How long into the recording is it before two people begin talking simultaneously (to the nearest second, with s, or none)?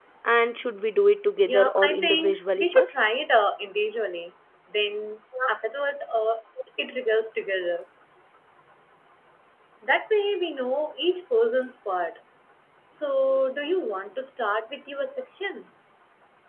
1 s